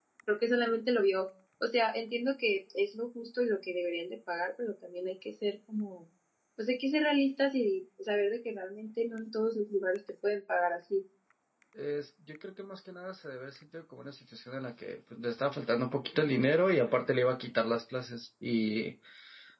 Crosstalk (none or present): none